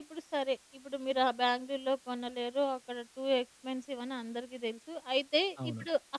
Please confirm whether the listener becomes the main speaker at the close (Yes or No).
No